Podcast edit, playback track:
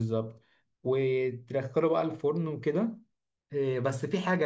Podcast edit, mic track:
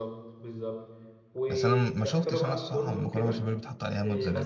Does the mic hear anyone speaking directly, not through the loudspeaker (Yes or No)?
Yes